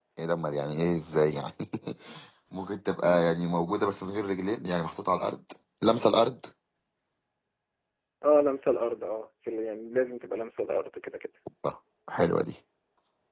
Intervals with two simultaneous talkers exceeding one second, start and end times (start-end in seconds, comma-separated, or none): none